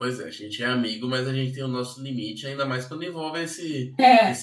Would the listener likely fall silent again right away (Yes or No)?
Yes